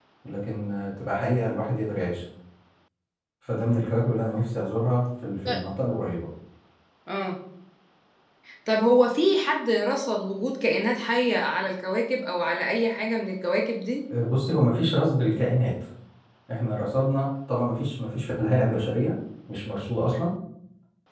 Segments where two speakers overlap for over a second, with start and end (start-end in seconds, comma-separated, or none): none